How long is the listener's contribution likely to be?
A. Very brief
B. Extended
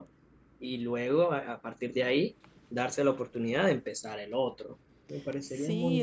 B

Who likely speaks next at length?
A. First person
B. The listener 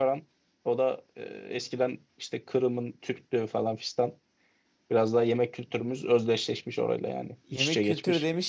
B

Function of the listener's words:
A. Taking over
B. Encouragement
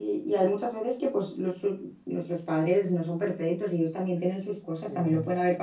B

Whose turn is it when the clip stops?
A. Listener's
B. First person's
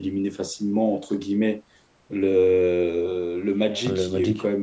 B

